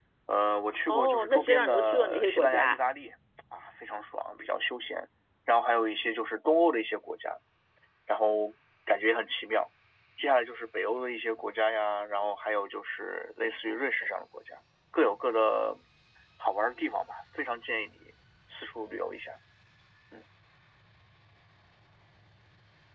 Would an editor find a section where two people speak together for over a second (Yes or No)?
Yes